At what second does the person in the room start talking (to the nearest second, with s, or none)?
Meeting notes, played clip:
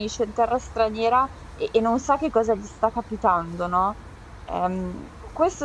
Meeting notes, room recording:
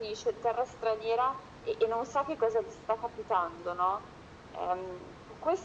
none